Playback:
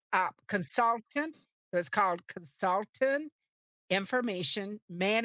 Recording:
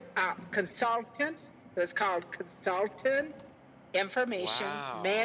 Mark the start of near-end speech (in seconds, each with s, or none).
4.3 s